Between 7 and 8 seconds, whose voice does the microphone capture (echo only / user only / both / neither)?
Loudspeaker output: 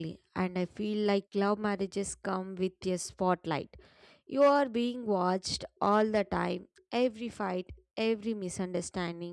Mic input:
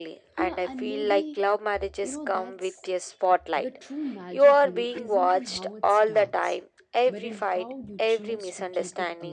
both